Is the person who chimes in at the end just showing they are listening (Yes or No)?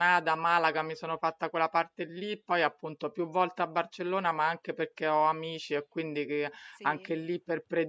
Yes